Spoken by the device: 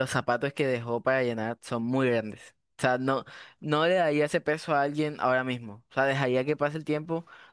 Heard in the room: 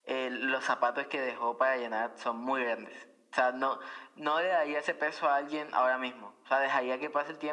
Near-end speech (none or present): none